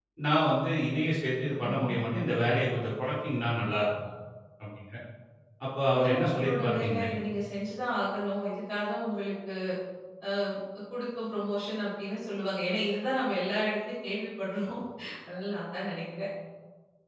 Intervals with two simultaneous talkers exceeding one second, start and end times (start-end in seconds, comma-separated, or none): 5.9-7.1